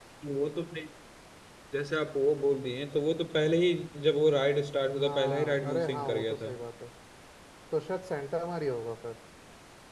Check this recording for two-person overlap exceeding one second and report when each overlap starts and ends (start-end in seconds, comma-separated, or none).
5.0-6.5